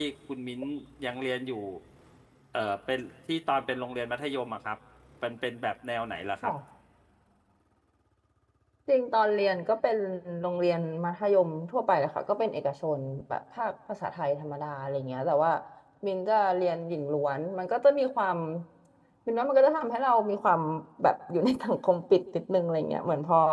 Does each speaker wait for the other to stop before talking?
Yes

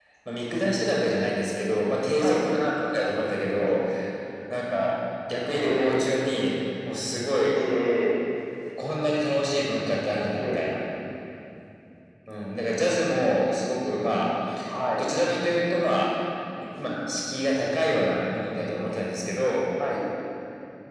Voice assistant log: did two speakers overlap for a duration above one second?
No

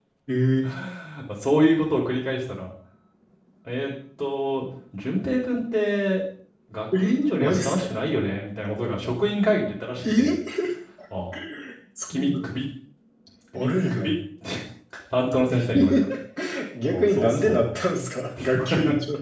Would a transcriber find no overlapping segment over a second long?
No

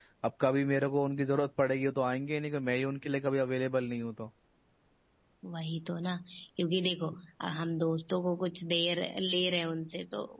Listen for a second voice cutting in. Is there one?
No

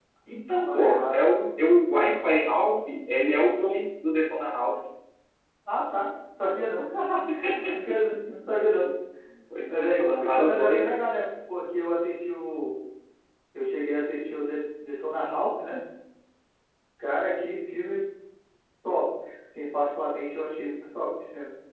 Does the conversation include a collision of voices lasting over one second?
Yes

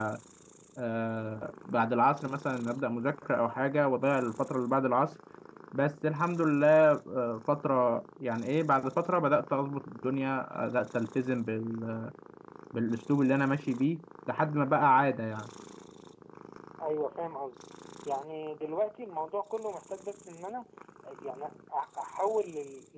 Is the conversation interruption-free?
Yes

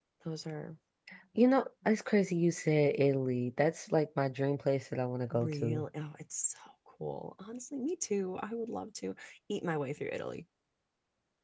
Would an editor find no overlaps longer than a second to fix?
Yes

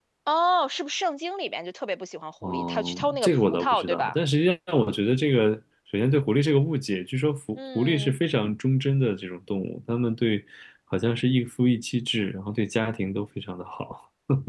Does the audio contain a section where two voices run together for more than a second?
Yes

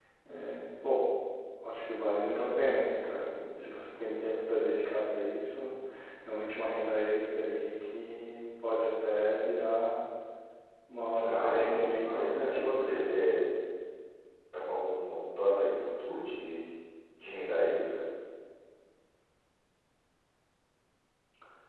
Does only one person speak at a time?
No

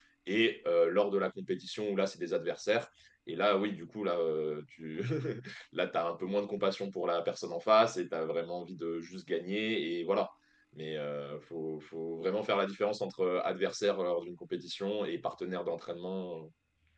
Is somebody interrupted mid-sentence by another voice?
No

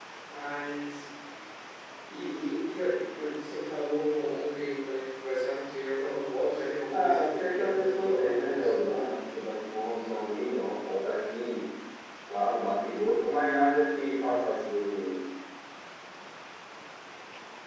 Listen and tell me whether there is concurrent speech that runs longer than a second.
Yes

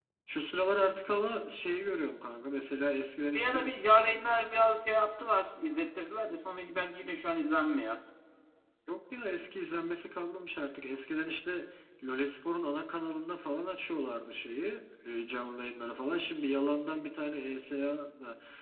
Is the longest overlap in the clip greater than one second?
No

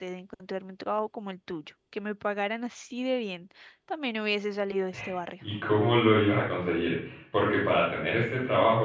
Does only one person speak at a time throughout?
Yes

